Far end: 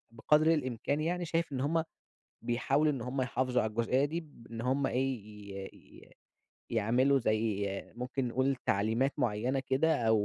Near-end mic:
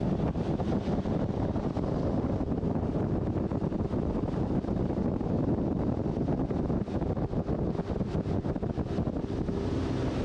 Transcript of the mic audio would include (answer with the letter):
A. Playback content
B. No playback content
B